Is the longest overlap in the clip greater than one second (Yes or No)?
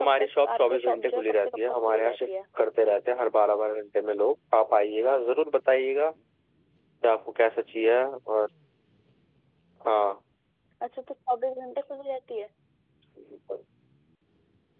Yes